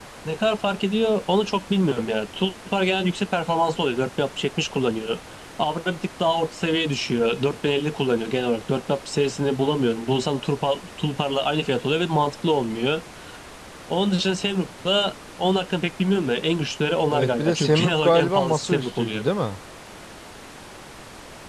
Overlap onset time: 17.1 s

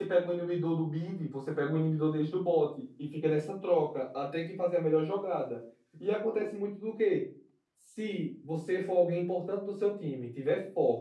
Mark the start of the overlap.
none

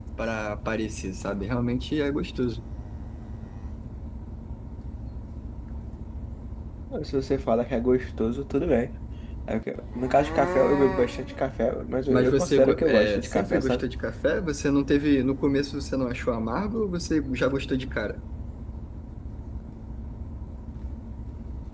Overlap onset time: 12.1 s

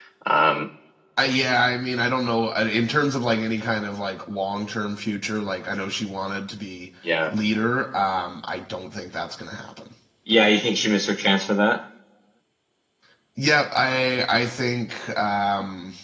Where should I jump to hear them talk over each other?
none

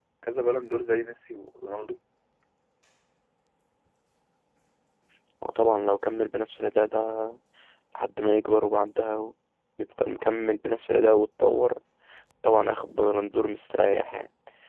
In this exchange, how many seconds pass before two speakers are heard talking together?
none

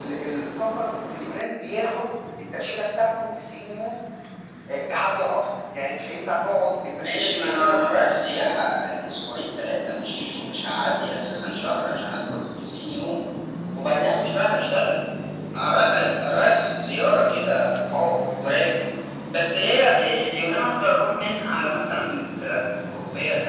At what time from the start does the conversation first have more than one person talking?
7.0 s

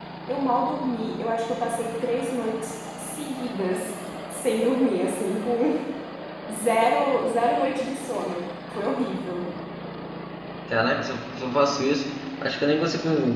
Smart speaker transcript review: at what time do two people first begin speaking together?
none

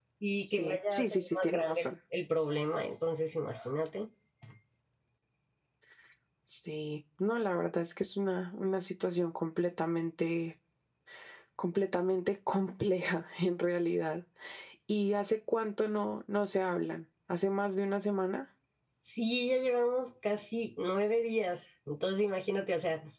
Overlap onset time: 0.5 s

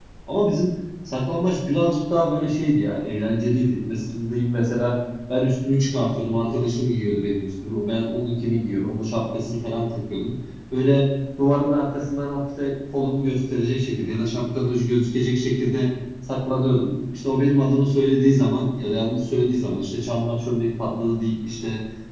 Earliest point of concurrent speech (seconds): none

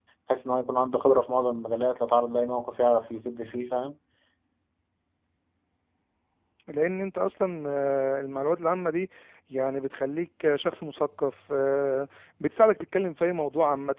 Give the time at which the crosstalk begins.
none

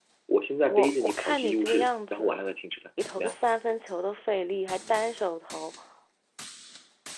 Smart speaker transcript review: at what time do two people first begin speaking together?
0.7 s

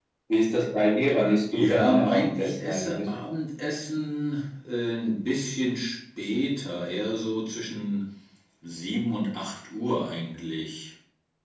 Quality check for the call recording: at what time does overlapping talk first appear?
1.5 s

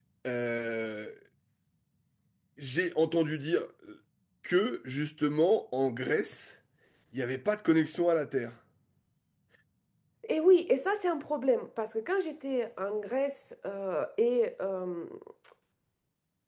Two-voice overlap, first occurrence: none

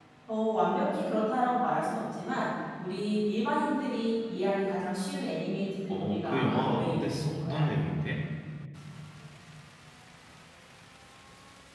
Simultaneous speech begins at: 5.9 s

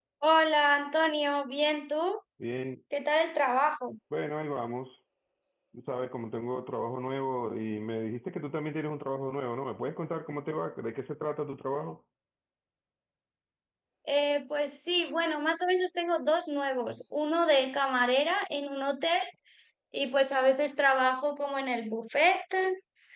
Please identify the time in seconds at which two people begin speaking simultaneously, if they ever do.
none

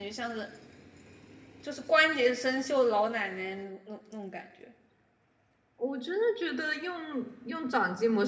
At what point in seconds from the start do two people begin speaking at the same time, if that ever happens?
none

